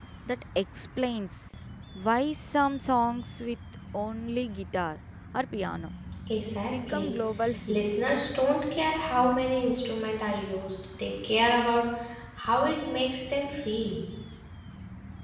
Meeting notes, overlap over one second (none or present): none